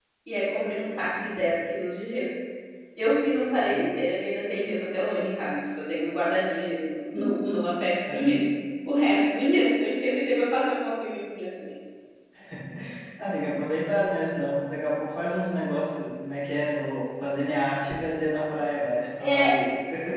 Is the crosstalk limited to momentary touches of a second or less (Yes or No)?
Yes